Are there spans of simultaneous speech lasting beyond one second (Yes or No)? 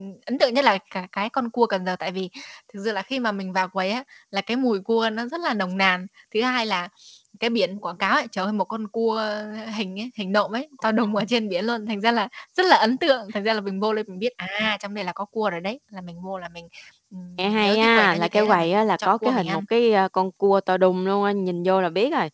Yes